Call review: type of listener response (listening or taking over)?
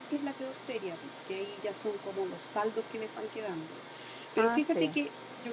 listening